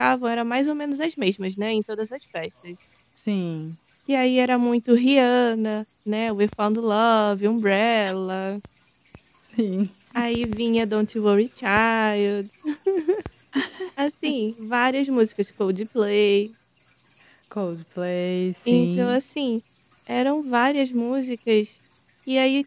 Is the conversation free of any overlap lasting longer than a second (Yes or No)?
Yes